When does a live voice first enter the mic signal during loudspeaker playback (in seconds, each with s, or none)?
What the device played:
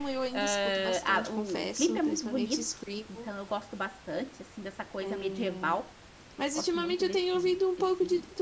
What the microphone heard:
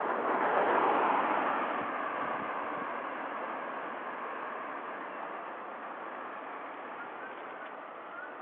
none